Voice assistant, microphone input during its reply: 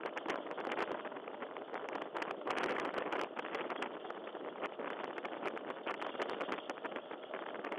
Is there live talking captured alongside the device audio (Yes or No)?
No